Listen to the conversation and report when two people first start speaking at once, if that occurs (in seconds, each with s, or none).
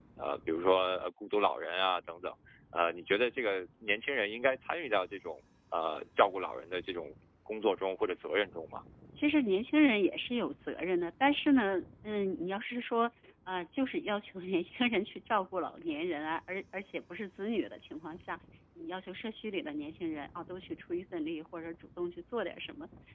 none